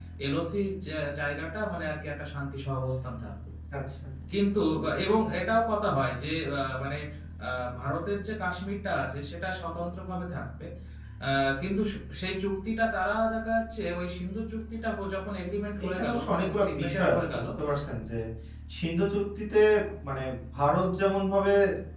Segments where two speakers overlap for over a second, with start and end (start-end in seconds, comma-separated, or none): 15.8-17.4